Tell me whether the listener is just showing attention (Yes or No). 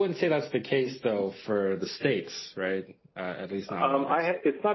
No